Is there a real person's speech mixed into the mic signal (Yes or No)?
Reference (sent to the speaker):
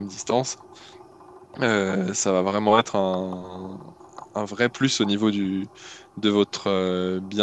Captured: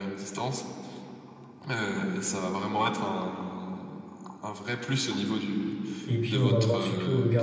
Yes